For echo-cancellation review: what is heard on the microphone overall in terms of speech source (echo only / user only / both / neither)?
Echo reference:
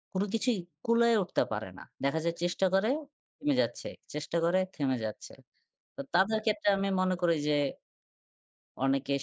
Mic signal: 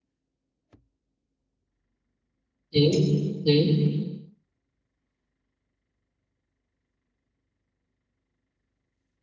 user only